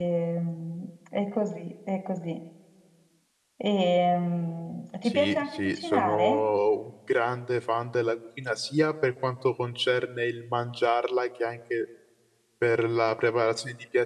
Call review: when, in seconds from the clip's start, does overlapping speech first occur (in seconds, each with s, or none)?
5.0 s